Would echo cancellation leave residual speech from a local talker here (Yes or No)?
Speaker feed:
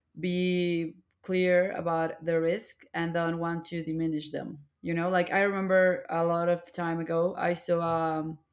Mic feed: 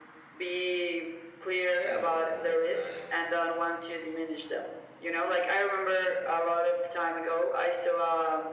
Yes